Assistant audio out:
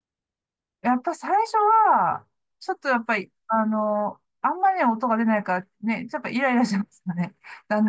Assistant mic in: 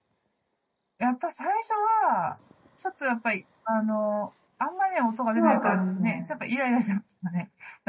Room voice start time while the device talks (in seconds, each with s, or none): 5.3 s